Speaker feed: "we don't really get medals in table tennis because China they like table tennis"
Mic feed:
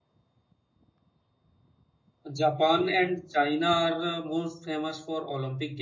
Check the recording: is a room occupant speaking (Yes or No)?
Yes